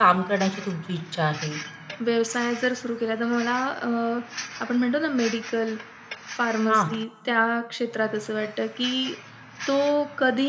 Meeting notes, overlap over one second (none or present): none